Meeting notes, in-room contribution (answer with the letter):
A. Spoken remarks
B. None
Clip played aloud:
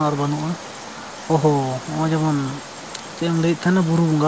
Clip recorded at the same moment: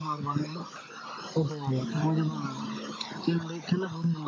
A